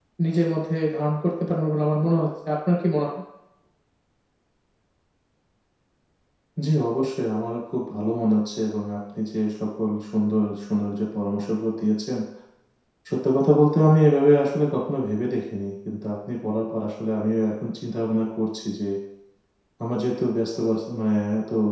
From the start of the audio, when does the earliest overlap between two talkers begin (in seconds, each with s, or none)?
none